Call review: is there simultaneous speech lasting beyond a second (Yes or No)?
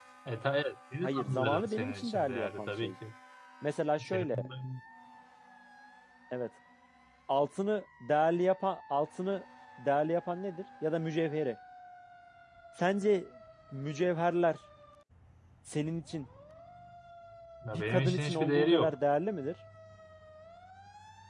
Yes